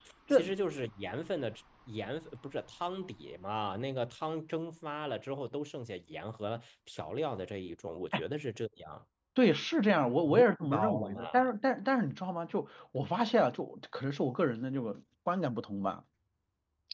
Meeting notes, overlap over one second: present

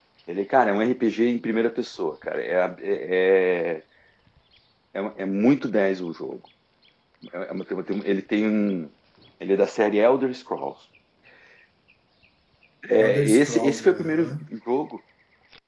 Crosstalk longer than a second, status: present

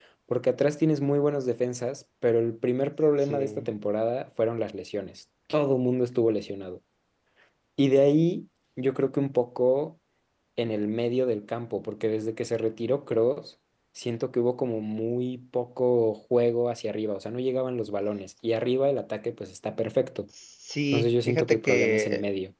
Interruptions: present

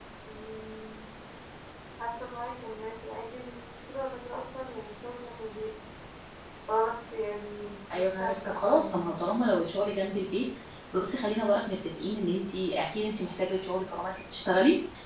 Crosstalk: present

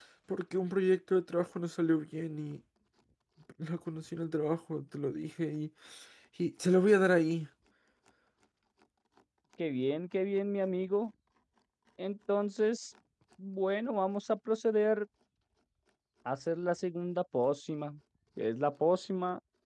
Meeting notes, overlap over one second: none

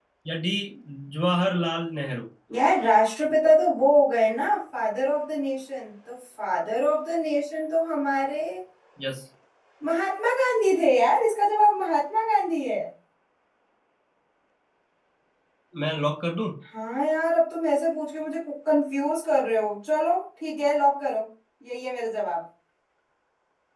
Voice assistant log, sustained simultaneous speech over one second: none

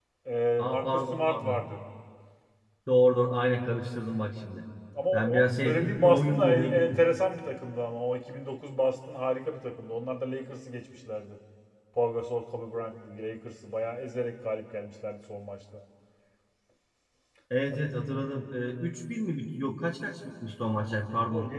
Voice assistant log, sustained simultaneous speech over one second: present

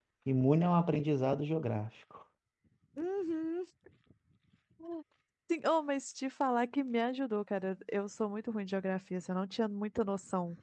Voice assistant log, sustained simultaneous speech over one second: none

